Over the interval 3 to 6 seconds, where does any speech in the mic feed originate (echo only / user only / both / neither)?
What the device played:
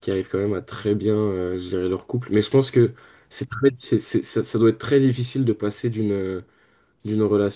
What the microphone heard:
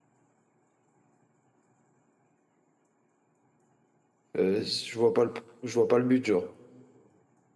user only